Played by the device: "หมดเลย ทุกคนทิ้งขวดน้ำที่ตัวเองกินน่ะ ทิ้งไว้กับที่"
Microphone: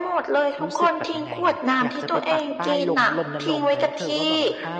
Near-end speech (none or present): present